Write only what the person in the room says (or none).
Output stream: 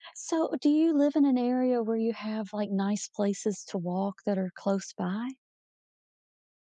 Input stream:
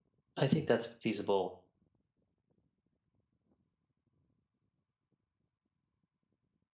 I think that's feasible